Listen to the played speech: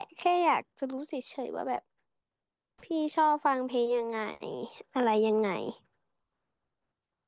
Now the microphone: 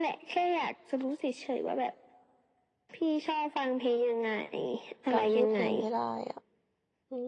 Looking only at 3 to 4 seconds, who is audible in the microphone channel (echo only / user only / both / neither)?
echo only